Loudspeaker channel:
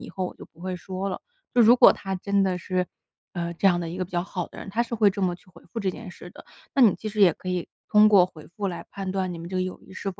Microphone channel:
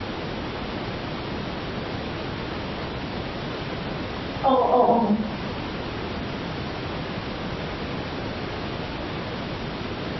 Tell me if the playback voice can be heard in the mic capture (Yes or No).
No